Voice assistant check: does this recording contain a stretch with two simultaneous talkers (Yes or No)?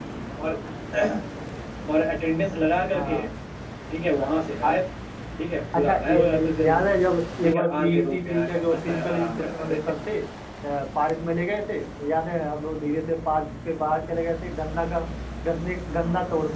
Yes